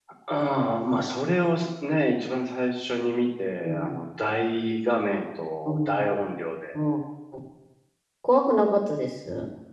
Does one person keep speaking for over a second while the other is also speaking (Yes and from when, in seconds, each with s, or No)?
No